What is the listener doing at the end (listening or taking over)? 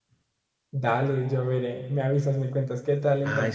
taking over